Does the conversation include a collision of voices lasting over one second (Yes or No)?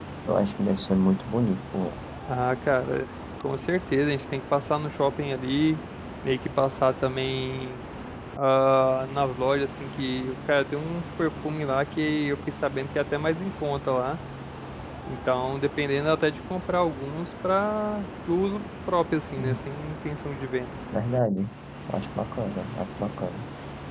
No